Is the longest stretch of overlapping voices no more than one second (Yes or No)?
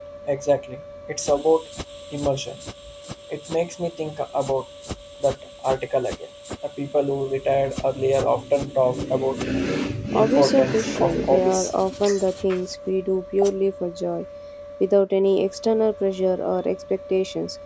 No